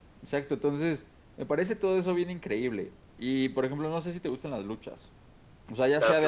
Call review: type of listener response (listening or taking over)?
listening